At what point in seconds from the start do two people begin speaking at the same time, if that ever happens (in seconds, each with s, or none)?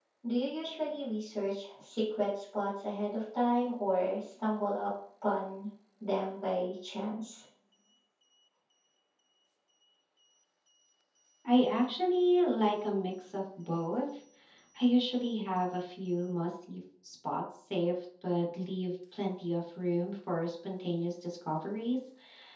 none